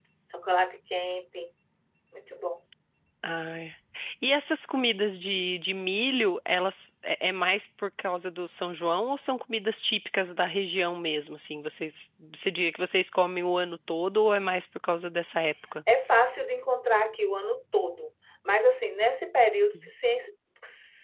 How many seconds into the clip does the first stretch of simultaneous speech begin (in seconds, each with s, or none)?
none